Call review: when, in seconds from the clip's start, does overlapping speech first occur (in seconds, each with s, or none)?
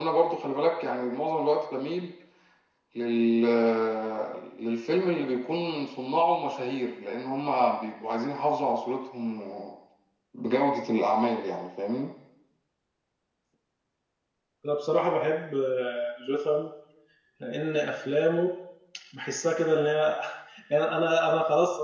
none